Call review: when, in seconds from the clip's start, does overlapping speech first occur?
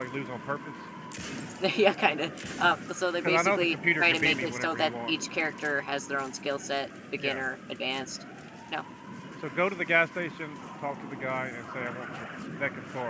3.2 s

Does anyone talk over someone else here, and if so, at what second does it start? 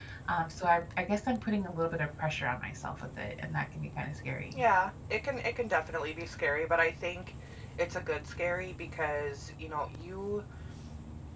none

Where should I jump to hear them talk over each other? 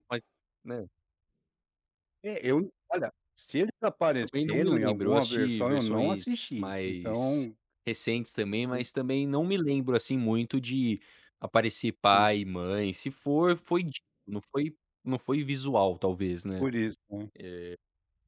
4.2 s

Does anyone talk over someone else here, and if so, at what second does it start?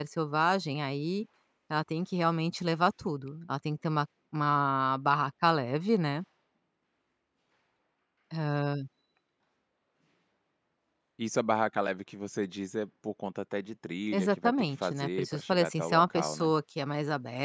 14.1 s

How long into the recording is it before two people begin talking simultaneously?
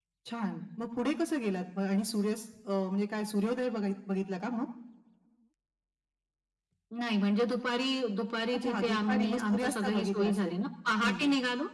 8.6 s

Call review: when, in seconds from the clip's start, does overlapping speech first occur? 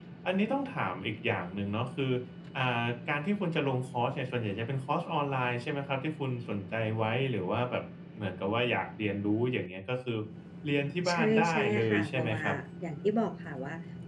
11.1 s

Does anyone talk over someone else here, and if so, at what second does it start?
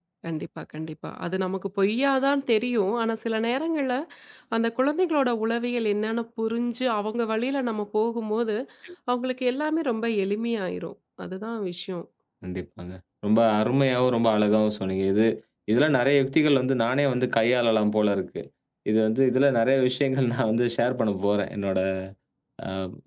none

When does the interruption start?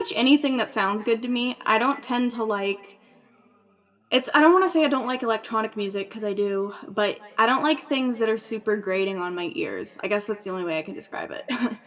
none

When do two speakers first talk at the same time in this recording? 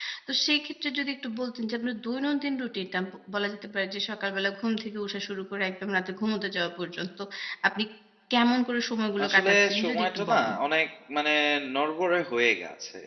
9.2 s

